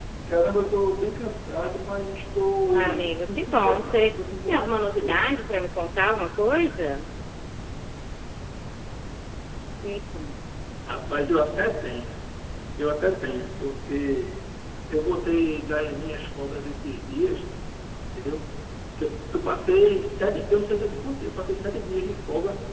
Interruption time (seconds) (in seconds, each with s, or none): 2.7 s